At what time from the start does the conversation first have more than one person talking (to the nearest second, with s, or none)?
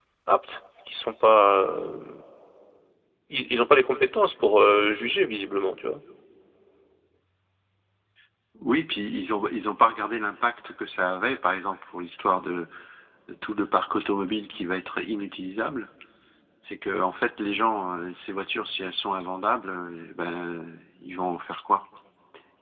none